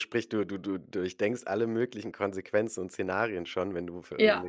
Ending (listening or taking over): listening